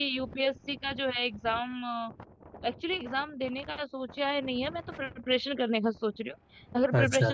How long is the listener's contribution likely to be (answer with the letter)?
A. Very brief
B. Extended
A